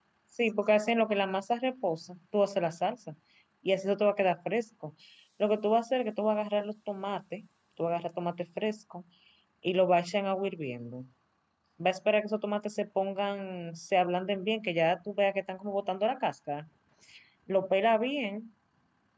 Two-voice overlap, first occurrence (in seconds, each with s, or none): none